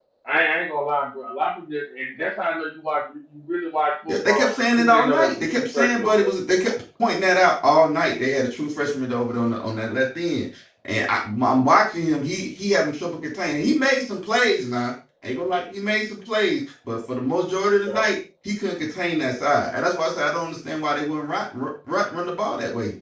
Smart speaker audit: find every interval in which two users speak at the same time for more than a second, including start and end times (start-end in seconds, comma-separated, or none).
4.1-6.3